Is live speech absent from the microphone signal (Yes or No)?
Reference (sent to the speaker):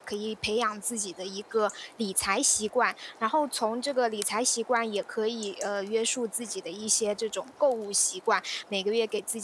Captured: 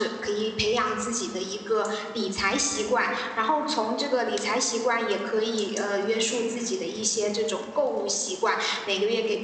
Yes